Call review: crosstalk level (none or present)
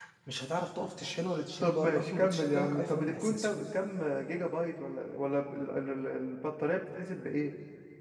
present